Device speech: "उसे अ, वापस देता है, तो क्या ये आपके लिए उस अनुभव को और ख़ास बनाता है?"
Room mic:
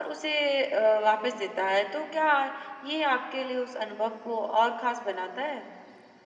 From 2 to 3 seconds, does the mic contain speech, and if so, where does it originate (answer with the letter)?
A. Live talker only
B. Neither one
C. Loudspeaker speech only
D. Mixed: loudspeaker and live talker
C